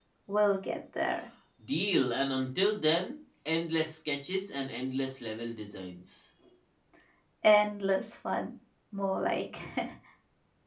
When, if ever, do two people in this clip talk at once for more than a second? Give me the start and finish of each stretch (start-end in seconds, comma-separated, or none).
none